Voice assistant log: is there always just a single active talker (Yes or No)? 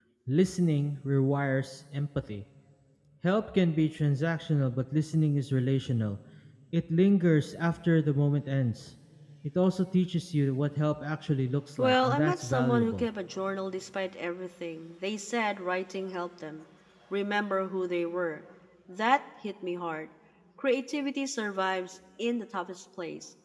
No